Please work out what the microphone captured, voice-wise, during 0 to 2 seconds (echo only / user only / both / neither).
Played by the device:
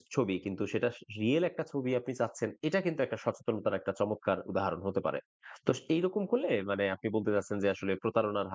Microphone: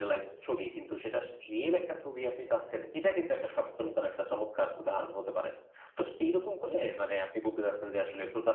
echo only